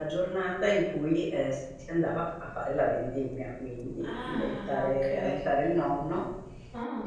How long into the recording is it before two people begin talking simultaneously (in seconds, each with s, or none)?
4.0 s